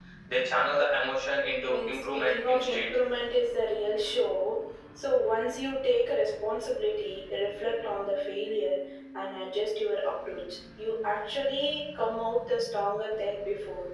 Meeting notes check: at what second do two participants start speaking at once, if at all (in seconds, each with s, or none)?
1.7 s